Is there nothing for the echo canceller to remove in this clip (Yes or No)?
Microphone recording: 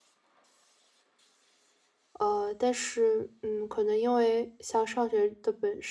Yes